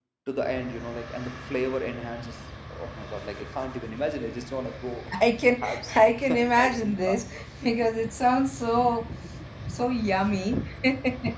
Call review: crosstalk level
present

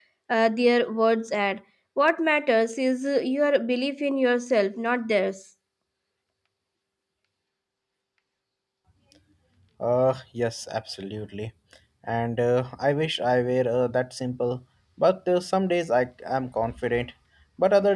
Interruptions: none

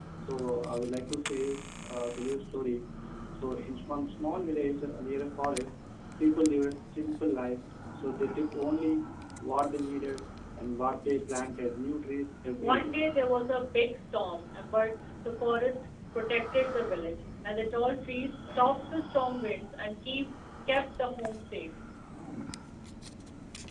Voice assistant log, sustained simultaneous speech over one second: none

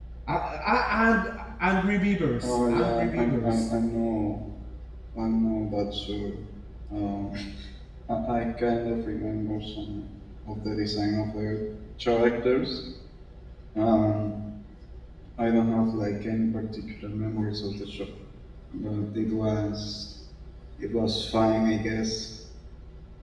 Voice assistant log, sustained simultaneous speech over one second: present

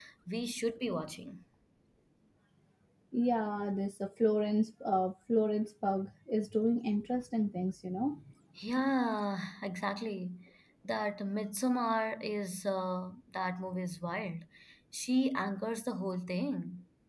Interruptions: none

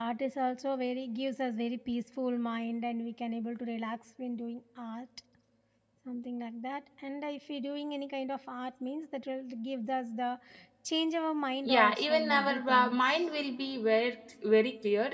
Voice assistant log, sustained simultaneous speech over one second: present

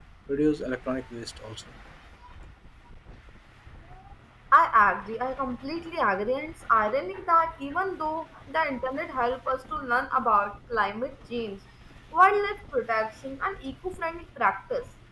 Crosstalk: none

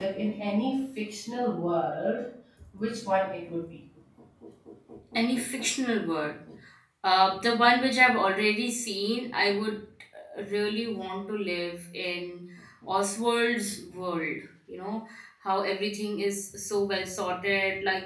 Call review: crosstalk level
none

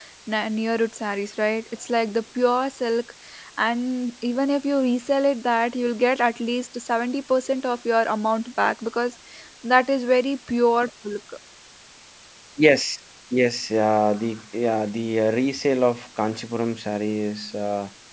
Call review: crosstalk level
none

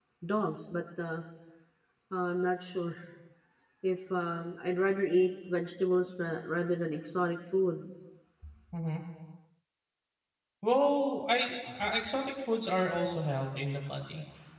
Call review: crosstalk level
none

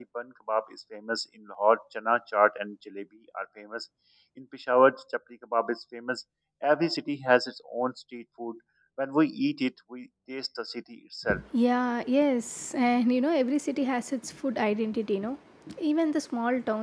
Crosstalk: none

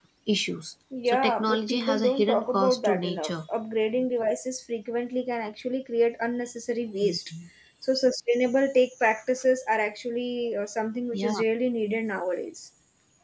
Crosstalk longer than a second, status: present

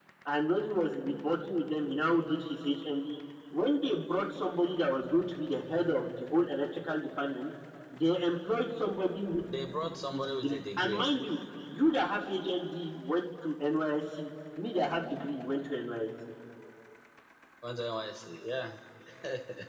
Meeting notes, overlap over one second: present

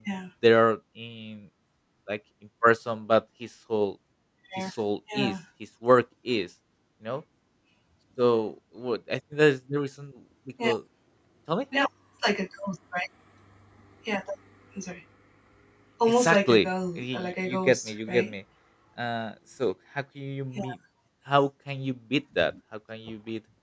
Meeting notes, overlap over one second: present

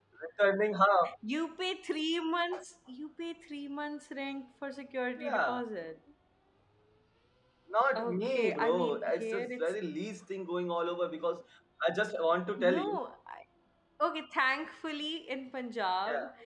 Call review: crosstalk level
present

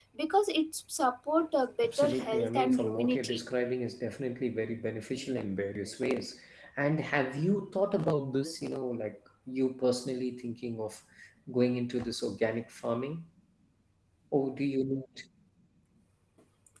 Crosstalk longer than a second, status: present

